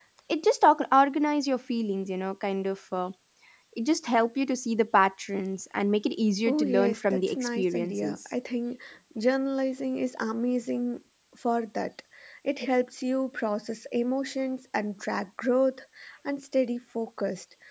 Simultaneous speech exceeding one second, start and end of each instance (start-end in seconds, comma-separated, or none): 6.5-8.2